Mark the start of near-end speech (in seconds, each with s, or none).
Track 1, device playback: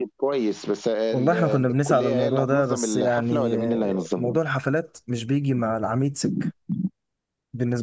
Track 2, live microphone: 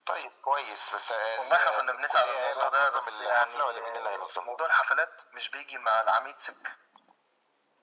none